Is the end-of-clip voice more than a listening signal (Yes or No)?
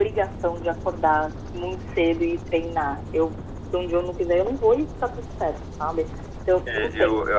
Yes